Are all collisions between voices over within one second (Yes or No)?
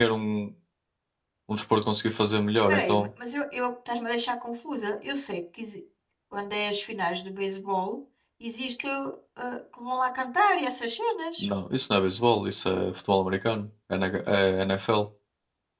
Yes